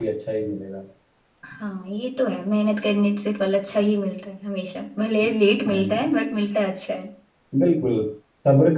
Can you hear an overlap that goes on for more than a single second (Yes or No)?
No